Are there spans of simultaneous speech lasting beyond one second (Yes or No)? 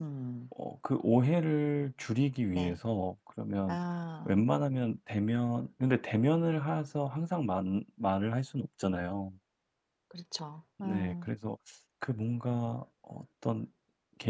No